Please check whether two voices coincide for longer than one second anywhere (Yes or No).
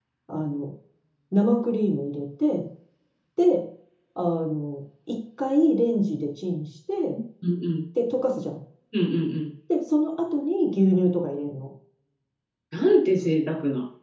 No